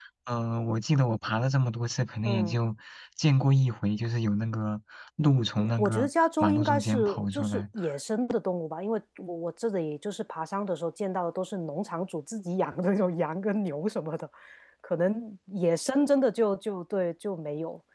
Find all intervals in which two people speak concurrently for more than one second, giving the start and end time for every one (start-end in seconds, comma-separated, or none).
5.8-7.6